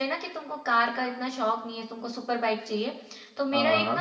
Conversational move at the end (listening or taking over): listening